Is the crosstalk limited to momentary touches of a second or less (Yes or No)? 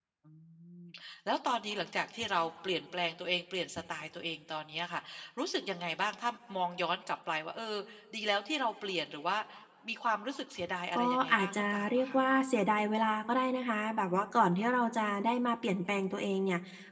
No